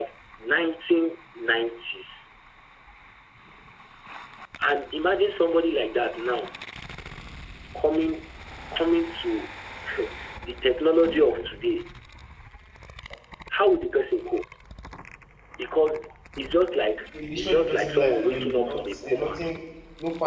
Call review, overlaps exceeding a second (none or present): present